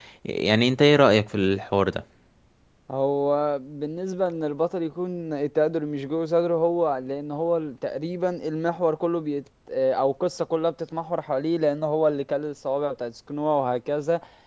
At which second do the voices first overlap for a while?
none

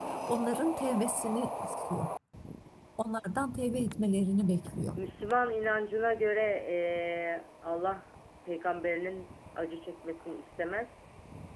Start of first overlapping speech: none

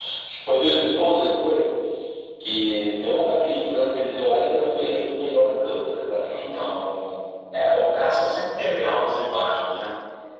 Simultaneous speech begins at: none

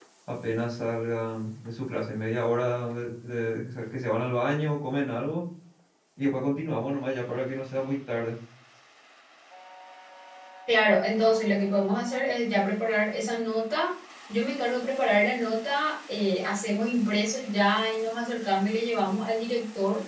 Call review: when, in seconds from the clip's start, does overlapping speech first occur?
none

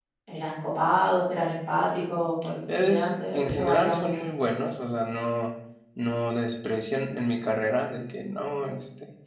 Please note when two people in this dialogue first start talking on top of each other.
2.7 s

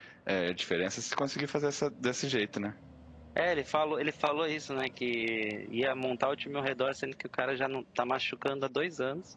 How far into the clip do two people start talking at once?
none

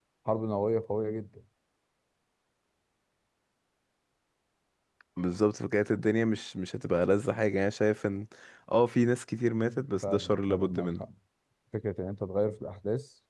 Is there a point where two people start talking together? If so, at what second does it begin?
9.5 s

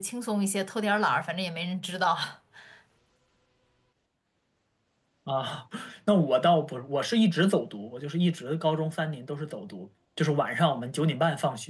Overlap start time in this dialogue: none

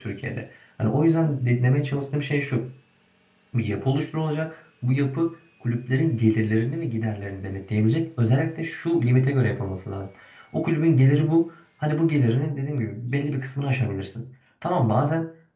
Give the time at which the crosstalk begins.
none

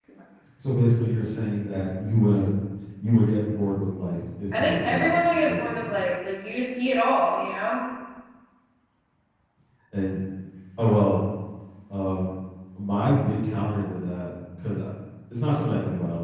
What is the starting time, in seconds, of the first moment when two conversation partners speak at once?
4.5 s

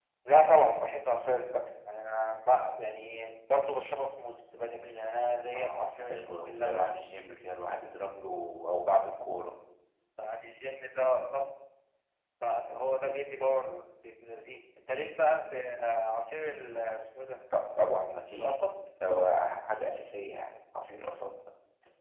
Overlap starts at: 5.5 s

